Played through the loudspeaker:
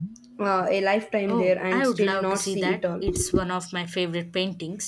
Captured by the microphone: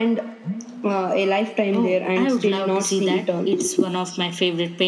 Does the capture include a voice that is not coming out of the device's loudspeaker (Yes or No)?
No